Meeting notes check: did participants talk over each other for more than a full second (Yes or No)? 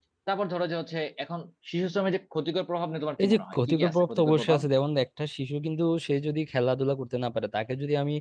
Yes